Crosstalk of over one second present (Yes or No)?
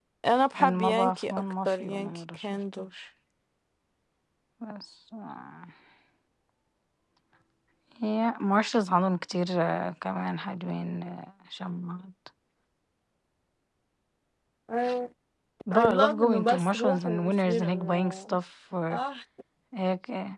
Yes